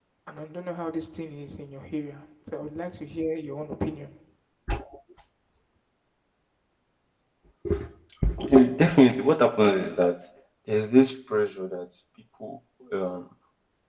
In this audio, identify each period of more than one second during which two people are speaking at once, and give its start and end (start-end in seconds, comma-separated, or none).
none